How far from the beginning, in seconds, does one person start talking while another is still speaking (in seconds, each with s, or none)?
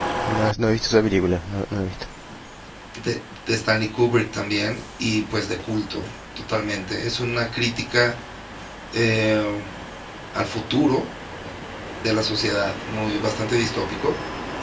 none